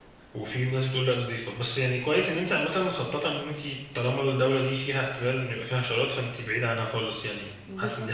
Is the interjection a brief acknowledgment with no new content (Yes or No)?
No